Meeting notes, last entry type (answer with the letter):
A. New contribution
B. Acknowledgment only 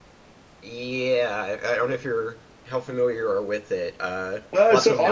A